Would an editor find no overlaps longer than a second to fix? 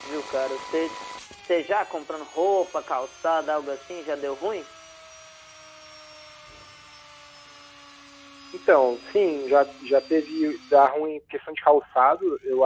Yes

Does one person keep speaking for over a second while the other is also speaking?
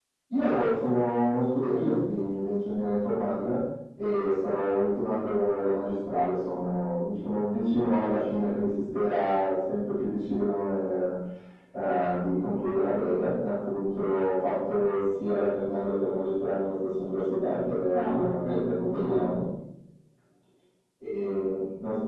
Yes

